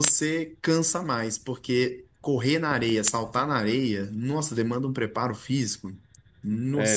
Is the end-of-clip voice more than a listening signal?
Yes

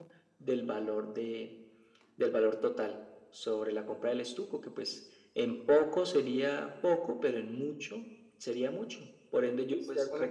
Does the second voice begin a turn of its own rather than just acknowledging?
Yes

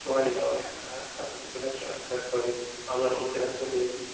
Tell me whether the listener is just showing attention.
No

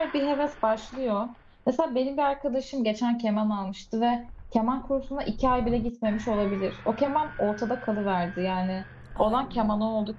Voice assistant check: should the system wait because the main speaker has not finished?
Yes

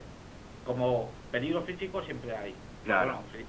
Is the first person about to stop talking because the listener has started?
No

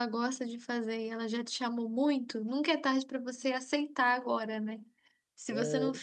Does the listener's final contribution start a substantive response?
No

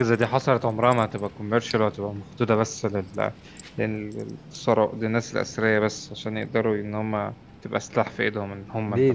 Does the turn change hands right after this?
Yes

